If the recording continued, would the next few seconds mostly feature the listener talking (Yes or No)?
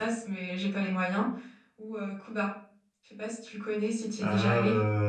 Yes